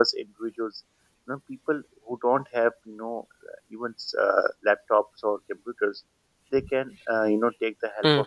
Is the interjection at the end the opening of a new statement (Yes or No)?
No